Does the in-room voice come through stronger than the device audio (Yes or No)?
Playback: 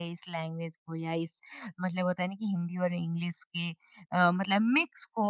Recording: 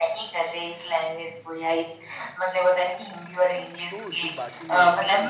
No